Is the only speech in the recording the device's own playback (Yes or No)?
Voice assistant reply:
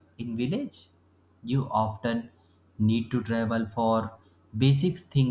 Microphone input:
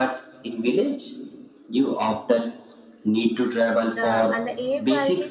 No